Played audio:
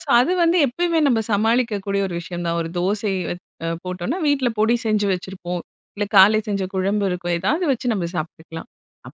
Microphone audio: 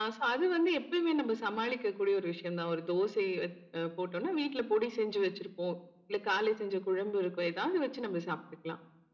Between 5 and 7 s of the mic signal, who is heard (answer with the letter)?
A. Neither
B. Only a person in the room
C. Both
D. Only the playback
D